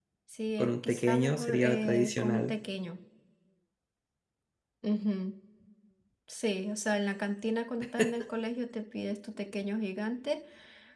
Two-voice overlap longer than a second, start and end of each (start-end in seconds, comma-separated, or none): 0.6-2.6